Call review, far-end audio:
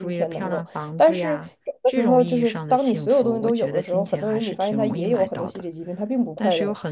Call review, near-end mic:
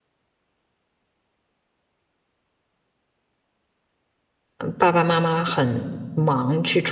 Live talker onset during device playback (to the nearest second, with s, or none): 5 s